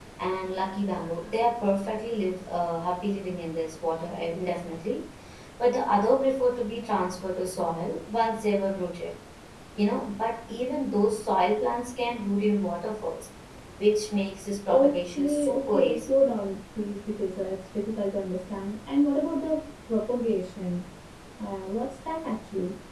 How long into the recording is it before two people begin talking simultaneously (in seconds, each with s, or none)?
14.7 s